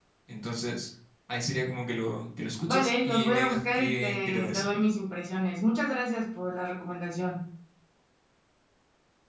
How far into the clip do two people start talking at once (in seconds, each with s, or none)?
2.7 s